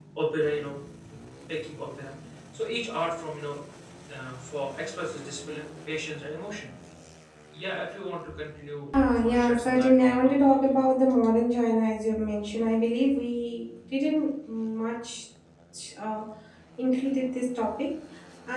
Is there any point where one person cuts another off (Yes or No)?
Yes